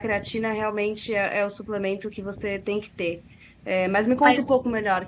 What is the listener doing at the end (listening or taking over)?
listening